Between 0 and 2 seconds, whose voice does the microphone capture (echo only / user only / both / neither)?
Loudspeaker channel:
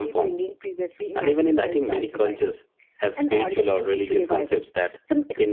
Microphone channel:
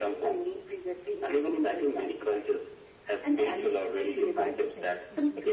echo only